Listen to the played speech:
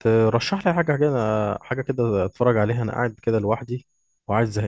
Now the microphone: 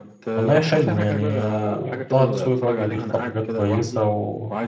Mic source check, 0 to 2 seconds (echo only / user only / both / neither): both